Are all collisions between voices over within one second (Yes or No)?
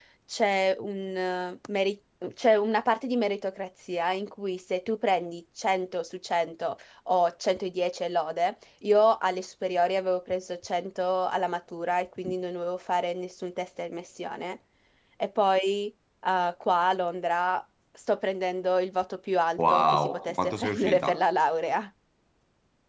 No